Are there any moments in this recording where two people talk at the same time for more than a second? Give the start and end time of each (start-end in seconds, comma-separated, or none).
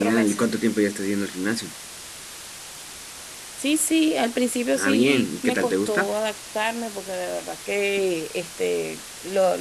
4.8-6.1